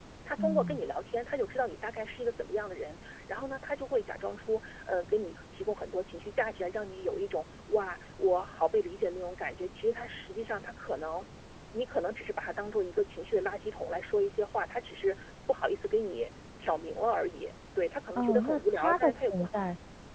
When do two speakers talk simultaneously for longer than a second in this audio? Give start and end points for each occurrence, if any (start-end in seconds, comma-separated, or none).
18.2-19.5